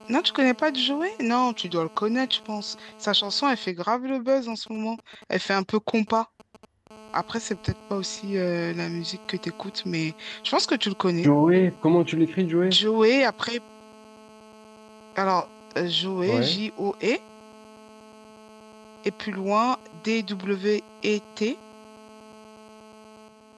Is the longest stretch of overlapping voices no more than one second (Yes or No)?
Yes